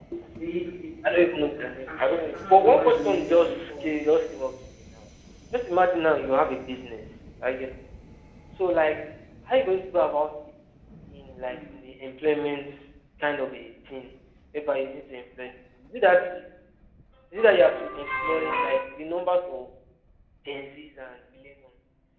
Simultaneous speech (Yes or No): Yes